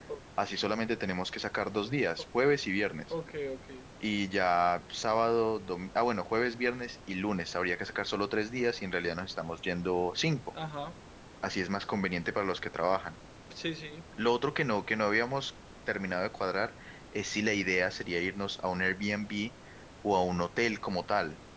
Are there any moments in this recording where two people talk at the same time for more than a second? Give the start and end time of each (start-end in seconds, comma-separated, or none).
none